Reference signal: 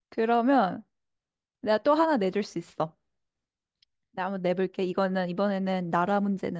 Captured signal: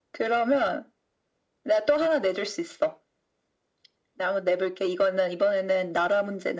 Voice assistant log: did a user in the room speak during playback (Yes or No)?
No